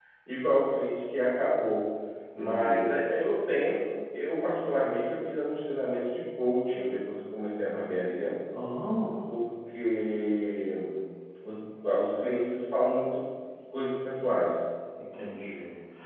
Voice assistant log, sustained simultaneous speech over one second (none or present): none